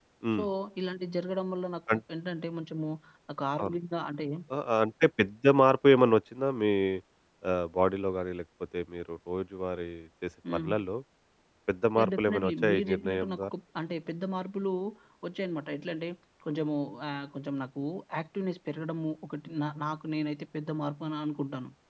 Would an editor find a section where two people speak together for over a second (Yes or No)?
Yes